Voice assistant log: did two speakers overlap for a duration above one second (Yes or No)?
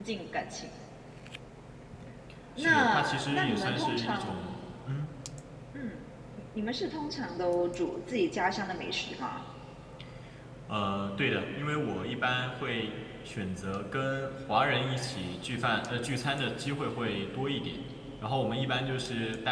Yes